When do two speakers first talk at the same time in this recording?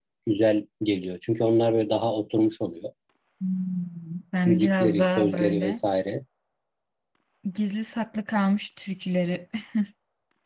4.5 s

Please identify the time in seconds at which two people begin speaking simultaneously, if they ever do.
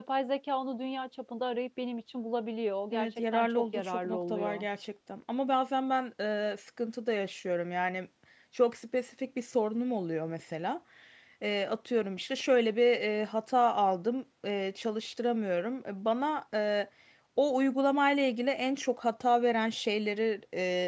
2.9 s

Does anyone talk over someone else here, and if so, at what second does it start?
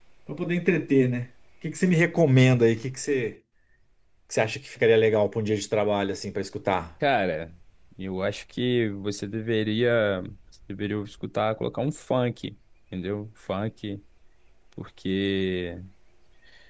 none

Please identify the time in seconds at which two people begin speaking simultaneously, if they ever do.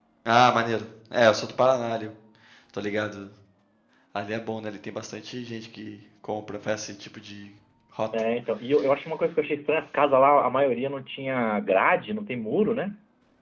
none

